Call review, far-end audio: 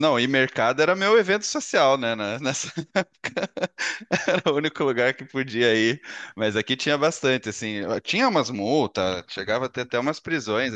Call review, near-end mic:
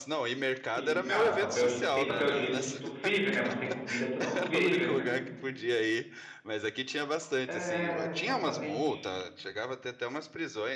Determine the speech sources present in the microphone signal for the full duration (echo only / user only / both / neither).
both